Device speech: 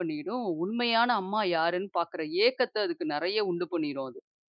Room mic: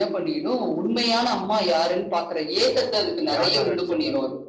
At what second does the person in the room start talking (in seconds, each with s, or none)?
2.7 s